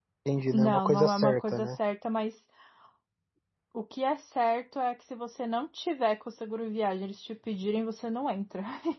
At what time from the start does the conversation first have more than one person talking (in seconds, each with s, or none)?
0.5 s